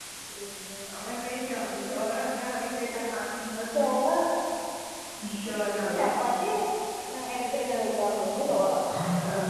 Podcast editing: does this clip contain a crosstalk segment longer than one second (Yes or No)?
No